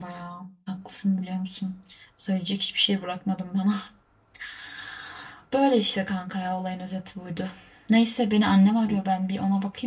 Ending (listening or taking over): listening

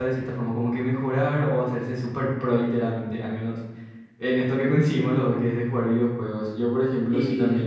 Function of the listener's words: listening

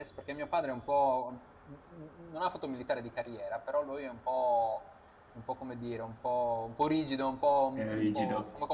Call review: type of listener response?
listening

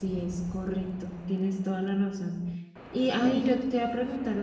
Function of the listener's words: listening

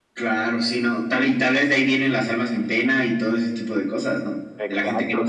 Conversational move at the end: taking over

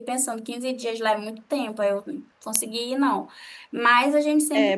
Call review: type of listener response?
taking over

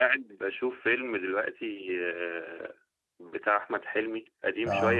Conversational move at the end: listening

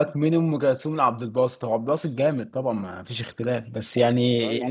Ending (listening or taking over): listening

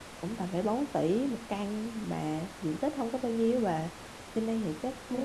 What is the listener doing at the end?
listening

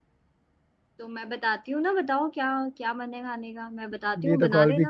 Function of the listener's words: taking over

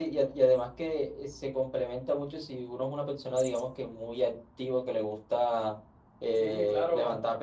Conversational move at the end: listening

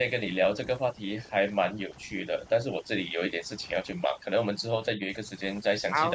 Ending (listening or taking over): taking over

